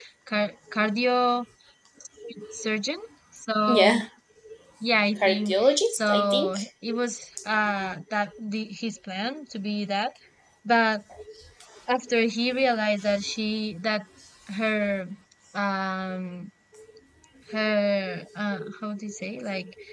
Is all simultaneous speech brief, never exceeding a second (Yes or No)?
No